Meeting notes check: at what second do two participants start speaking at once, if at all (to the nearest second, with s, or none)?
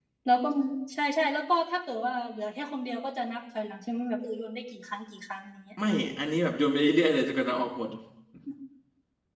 none